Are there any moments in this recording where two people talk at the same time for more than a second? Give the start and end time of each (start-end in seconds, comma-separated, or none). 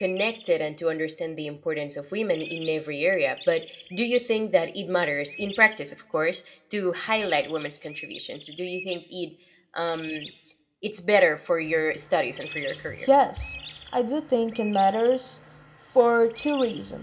none